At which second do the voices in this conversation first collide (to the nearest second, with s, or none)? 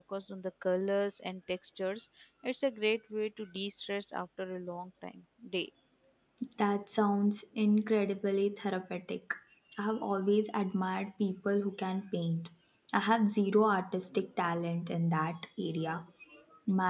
none